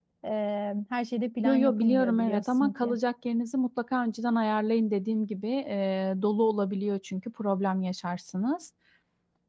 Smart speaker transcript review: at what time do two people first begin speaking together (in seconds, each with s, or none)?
1.4 s